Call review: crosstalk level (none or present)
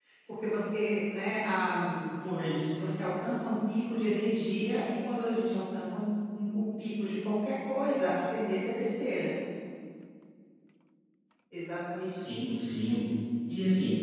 none